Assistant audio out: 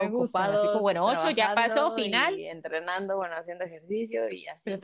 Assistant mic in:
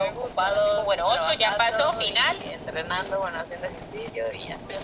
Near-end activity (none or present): none